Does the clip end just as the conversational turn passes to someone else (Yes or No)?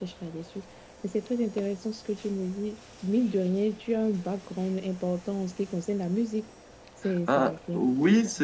Yes